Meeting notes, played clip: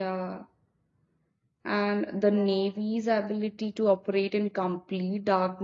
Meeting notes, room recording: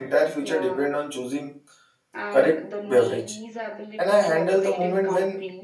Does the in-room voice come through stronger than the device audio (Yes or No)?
Yes